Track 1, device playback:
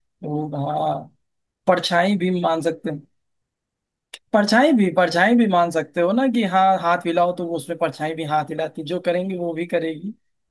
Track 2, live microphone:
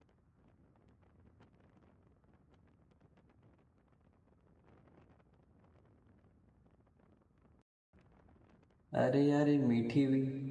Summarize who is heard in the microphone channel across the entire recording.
user only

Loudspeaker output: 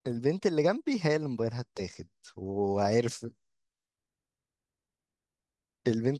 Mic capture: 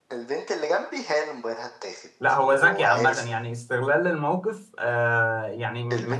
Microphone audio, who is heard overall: both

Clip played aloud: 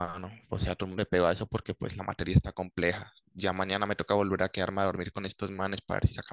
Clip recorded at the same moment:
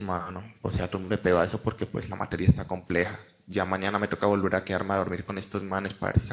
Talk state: echo only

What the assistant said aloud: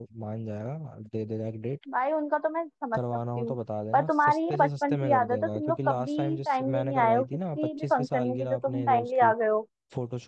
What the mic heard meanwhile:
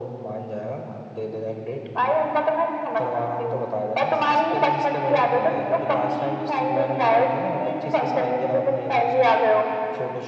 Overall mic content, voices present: echo only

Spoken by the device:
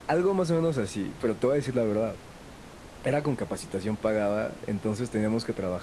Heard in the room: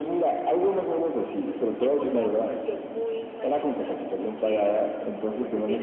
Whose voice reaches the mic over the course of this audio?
both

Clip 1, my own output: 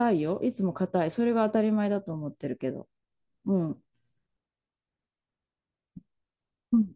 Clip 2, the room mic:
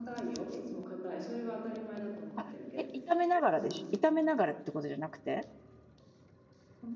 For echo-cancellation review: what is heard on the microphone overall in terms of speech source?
both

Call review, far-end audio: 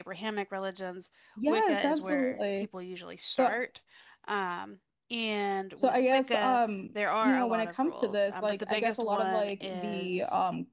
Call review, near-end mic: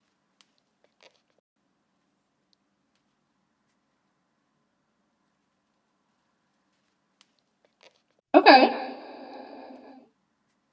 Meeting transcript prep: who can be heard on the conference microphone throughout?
user only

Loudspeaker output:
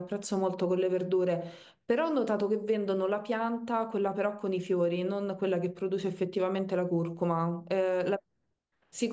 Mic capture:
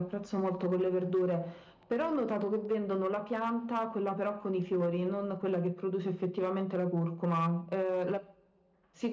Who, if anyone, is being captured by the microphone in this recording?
echo only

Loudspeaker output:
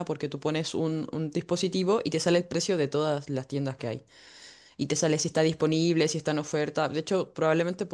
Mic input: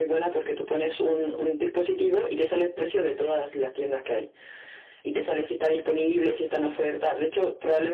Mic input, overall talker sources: echo only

